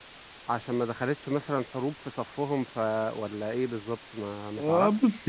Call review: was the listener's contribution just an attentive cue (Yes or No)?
No